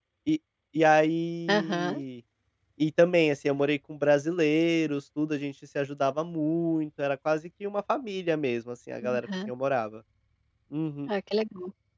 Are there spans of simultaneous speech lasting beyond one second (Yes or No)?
No